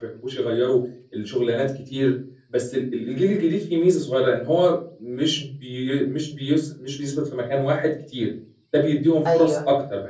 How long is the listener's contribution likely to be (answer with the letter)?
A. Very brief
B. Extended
A